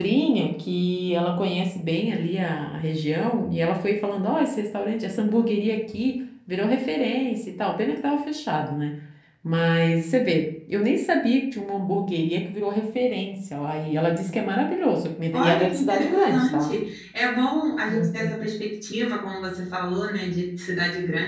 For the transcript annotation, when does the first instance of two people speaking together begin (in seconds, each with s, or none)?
15.3 s